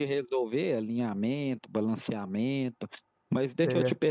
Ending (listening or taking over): listening